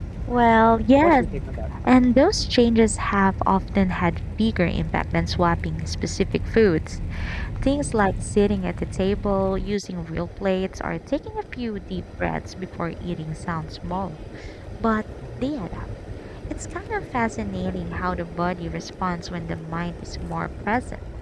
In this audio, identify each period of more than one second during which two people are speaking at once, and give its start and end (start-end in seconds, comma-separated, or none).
none